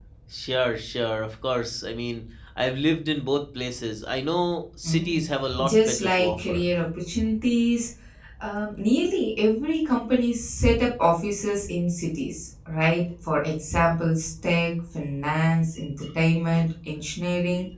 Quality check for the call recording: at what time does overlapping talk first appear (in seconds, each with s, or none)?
4.8 s